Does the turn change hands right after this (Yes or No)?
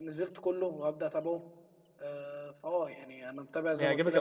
Yes